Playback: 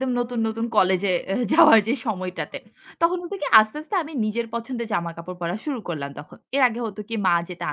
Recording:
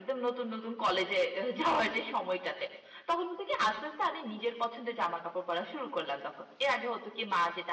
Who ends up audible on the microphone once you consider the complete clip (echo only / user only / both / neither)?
echo only